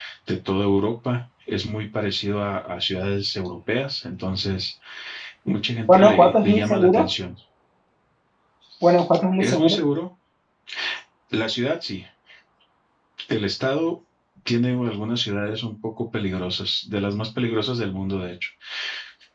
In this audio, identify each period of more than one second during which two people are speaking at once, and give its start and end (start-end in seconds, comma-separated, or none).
5.9-7.1